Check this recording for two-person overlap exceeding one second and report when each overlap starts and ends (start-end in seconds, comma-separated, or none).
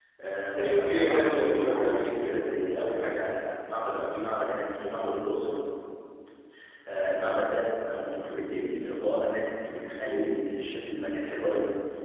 0.6-2.4